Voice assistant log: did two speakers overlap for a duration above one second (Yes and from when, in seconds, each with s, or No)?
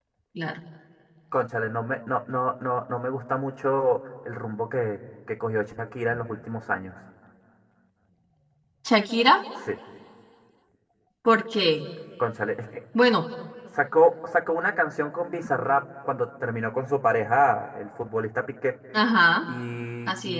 No